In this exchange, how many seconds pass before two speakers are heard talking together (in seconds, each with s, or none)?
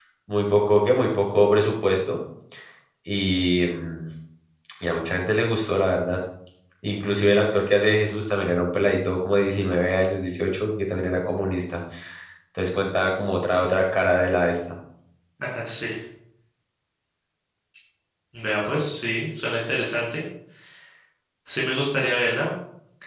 none